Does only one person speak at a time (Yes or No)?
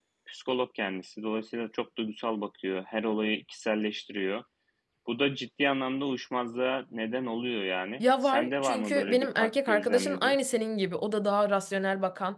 No